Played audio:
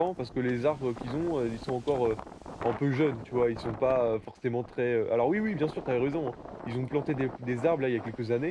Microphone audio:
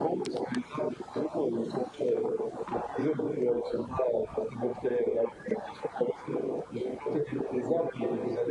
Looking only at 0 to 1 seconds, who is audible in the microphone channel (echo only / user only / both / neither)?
echo only